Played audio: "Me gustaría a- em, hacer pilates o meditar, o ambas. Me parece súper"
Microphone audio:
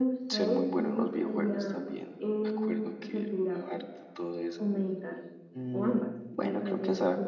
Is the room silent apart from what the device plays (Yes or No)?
No